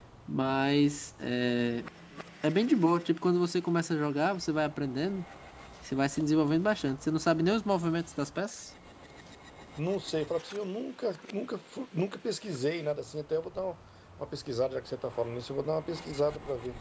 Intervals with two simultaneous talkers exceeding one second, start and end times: none

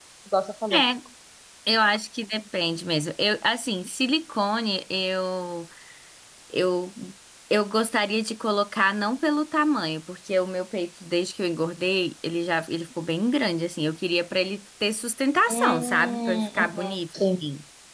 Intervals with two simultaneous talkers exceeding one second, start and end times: 15.5-17.2

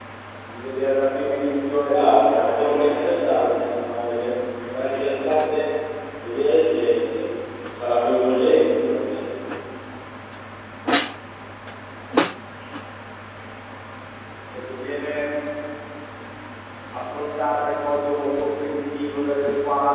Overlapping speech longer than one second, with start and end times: 1.9-3.3

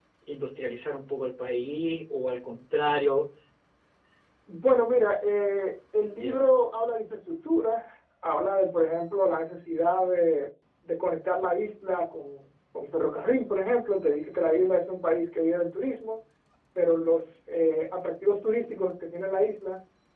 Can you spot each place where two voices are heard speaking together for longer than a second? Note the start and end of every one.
none

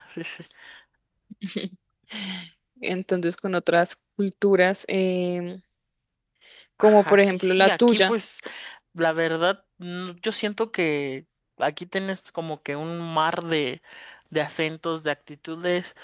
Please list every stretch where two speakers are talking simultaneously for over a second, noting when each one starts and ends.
6.8-8.1

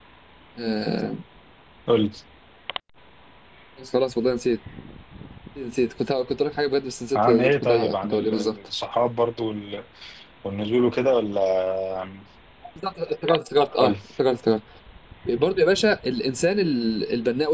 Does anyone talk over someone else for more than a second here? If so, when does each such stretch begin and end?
7.2-8.6

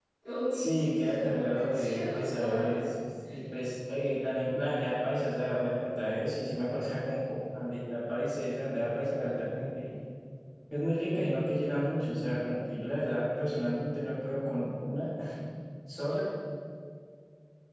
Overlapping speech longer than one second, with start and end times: 0.5-2.9

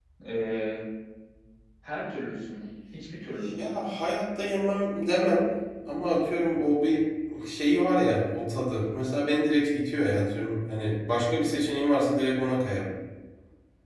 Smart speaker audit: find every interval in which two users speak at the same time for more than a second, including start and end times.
none

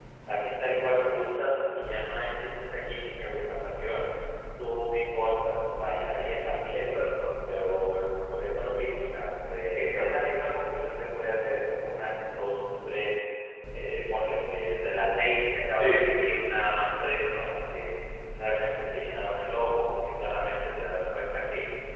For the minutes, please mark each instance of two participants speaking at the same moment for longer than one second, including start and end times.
none

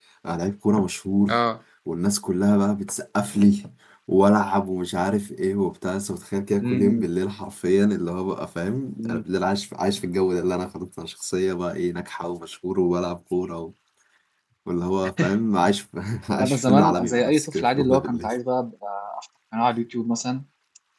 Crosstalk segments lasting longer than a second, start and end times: 16.4-18.4

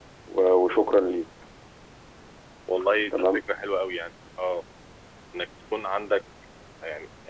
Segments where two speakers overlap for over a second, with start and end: none

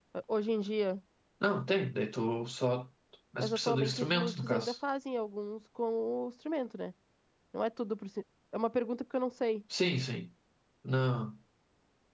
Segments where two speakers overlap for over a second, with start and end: 3.4-4.8

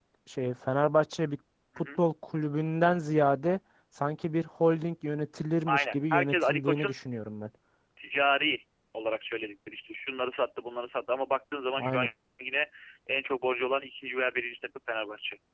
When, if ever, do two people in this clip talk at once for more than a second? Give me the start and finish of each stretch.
5.7-6.9

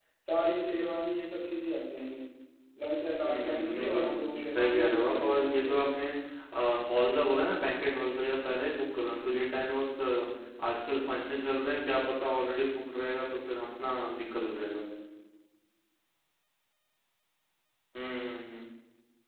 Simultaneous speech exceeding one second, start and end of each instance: 3.2-5.7

